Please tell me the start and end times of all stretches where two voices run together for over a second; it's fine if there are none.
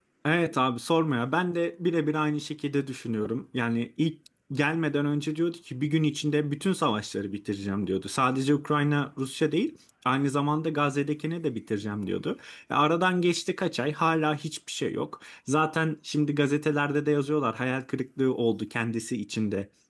none

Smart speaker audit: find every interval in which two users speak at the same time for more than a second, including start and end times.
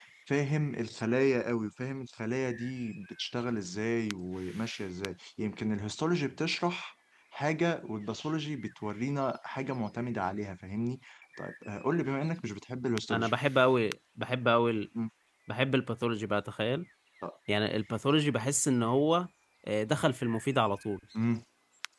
none

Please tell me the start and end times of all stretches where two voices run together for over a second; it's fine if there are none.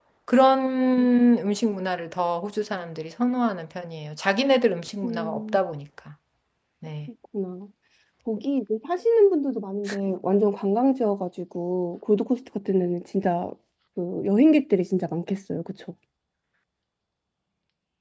none

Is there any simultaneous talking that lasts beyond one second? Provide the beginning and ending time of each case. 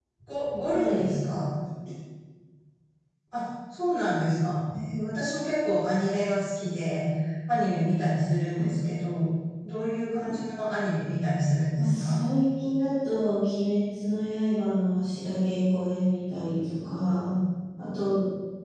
none

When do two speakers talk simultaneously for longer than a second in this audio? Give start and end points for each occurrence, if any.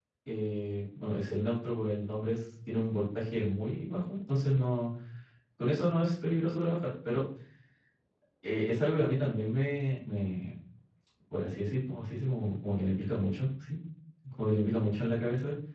none

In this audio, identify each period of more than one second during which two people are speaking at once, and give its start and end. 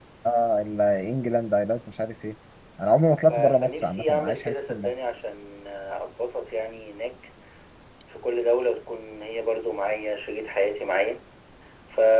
3.3-4.9

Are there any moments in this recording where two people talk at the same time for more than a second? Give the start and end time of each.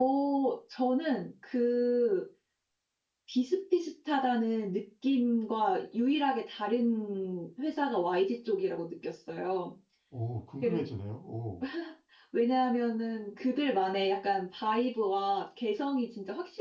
none

